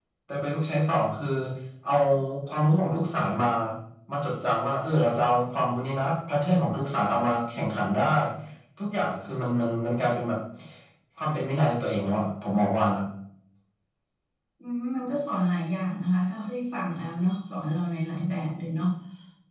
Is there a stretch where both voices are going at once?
No

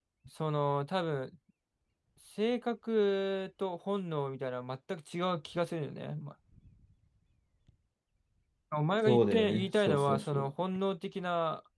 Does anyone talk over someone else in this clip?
Yes, from 9.1 s

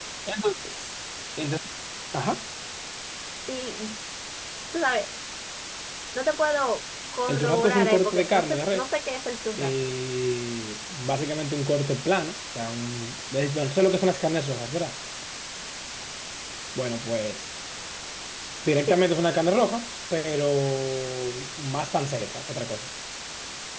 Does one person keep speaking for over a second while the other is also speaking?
Yes, from 7.3 s

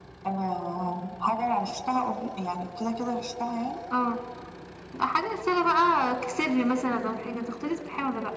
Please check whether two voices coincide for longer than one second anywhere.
No

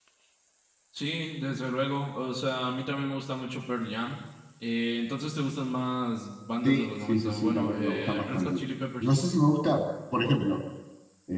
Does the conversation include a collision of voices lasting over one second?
Yes, from 6.6 s

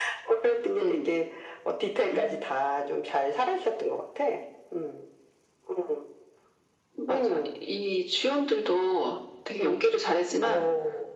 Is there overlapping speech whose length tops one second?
No

